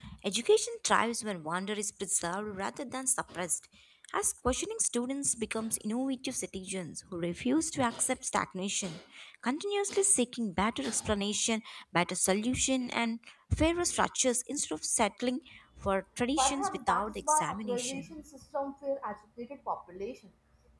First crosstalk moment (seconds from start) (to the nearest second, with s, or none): 16 s